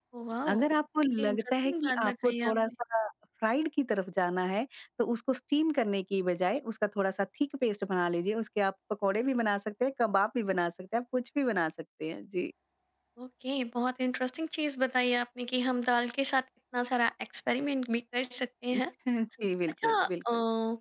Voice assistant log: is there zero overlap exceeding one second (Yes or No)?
No